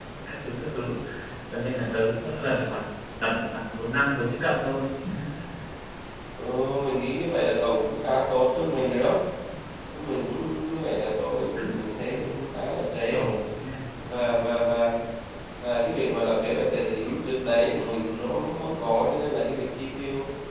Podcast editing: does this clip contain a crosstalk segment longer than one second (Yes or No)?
No